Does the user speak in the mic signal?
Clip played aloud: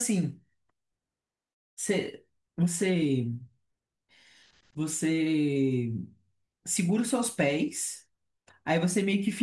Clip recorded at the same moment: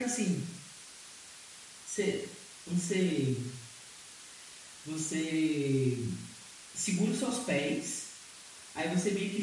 No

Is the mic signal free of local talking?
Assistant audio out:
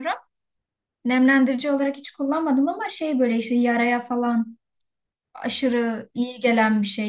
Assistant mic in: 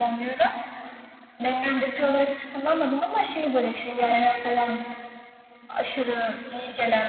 Yes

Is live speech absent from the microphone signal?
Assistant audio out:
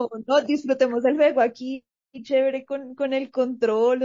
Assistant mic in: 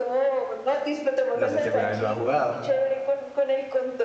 No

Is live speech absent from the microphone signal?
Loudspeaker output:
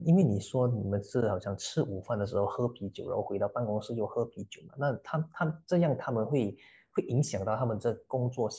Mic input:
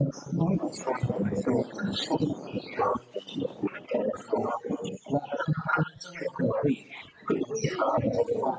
No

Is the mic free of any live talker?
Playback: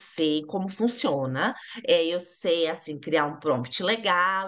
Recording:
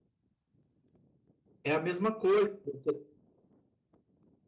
No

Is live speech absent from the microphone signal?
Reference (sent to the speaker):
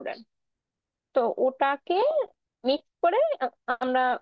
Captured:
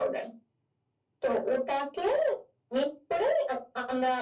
Yes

